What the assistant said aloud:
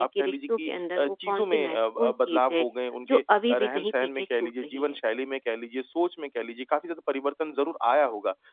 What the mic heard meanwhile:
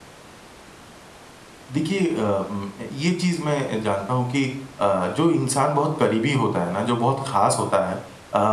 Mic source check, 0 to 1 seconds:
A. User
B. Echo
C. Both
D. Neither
D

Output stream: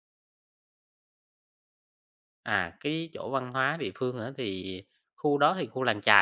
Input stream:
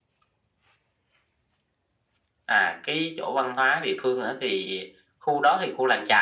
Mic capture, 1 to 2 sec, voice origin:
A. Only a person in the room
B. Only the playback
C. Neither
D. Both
C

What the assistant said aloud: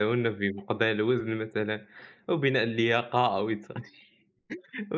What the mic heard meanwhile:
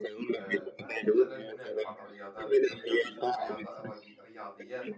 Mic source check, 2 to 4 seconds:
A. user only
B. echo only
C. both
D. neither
C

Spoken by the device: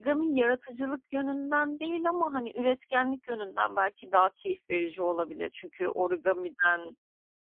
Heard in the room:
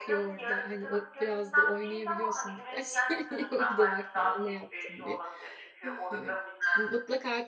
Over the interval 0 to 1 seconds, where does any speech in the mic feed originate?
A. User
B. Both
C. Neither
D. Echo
B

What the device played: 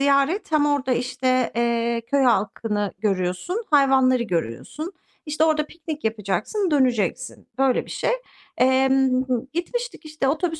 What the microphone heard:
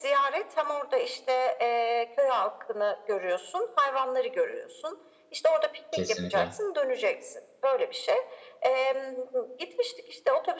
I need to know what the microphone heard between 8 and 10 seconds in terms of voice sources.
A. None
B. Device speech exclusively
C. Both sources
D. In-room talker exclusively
B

